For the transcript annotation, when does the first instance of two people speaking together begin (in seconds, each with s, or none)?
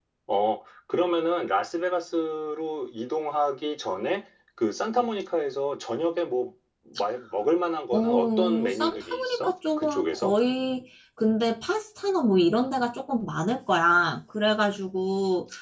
7.9 s